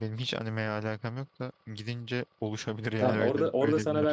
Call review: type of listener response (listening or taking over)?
taking over